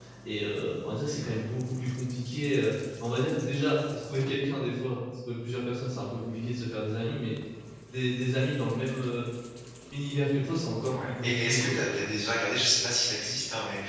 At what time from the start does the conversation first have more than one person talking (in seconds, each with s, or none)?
10.9 s